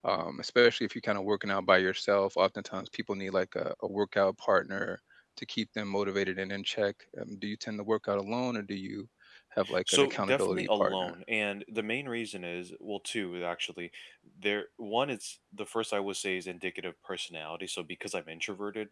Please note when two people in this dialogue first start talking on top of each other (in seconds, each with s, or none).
9.9 s